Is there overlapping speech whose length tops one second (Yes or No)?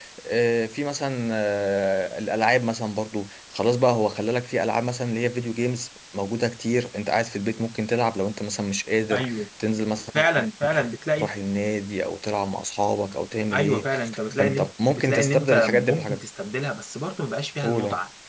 Yes